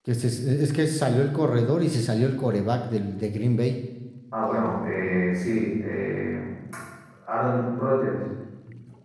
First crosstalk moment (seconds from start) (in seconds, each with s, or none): none